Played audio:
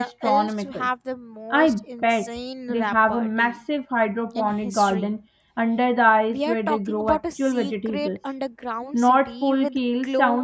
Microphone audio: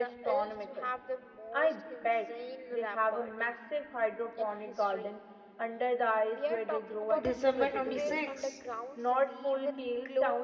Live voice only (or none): December 26th?